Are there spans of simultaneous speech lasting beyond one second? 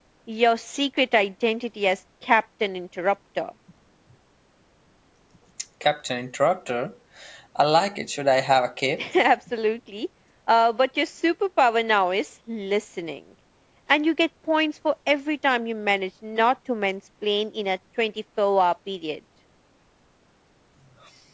No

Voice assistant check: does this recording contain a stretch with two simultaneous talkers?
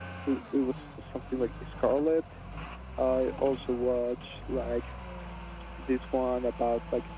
No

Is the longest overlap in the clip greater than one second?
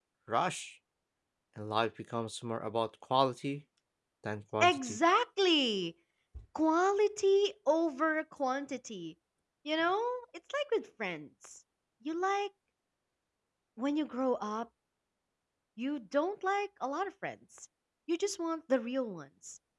No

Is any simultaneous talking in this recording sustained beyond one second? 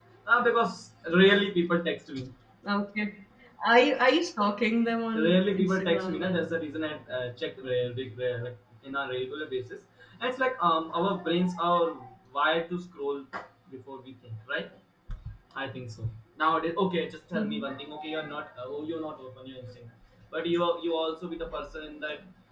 Yes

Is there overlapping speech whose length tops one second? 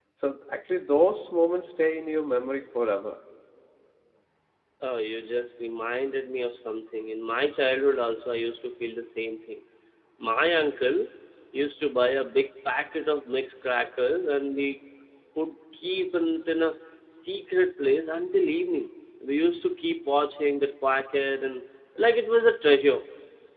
No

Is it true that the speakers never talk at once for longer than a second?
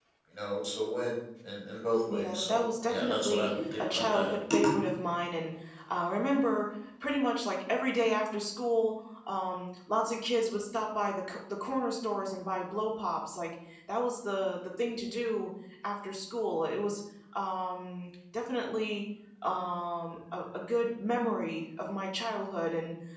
No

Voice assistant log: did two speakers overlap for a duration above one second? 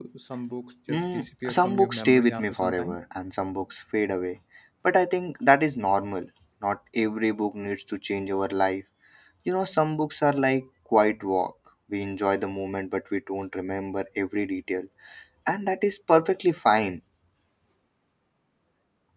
Yes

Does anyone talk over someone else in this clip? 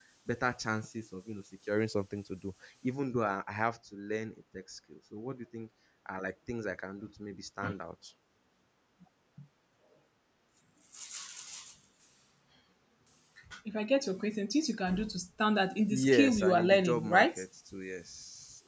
Yes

